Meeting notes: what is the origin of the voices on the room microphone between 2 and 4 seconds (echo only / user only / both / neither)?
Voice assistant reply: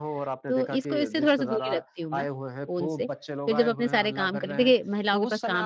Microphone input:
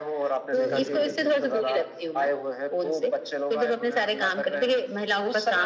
echo only